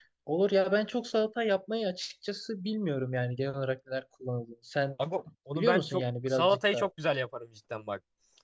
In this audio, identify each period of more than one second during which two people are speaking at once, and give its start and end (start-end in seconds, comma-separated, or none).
5.5-6.9